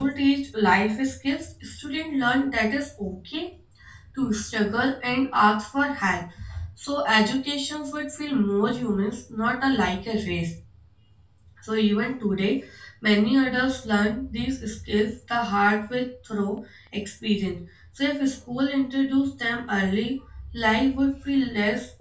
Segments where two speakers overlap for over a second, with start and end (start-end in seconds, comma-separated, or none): none